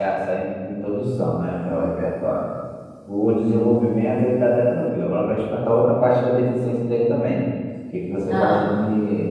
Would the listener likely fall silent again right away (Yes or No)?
Yes